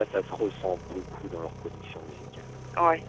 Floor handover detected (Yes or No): No